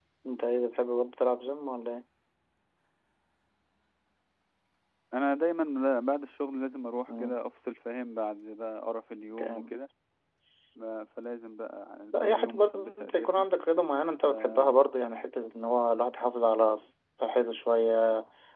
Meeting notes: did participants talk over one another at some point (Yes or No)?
Yes